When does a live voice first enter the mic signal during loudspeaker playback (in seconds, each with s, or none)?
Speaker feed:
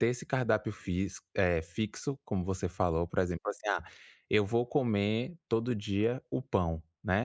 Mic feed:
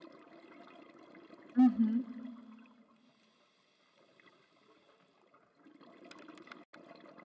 1.6 s